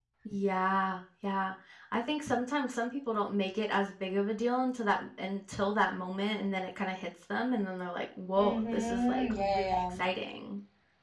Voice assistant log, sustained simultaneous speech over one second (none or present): present